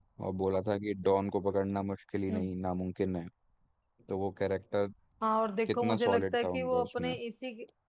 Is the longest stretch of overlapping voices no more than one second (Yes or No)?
No